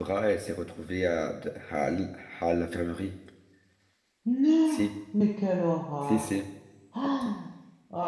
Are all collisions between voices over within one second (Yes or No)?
Yes